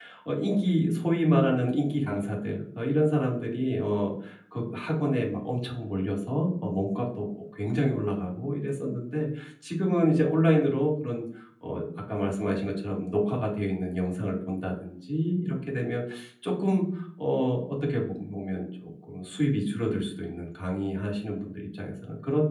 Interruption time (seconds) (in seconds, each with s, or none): none